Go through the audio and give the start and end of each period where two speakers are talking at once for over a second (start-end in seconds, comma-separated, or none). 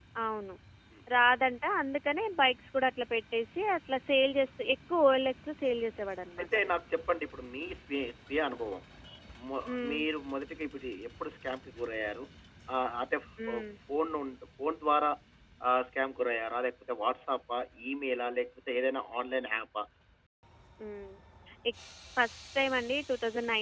none